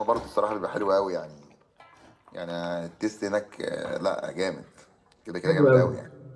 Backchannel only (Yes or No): No